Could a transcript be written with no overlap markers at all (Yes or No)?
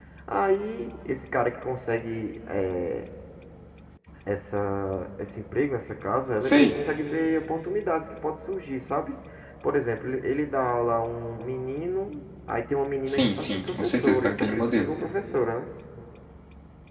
No